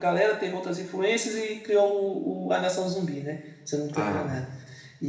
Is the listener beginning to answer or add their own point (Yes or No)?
No